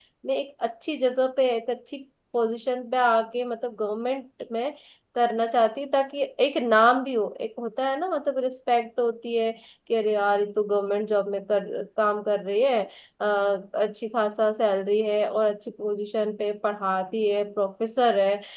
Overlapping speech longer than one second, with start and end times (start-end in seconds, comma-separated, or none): none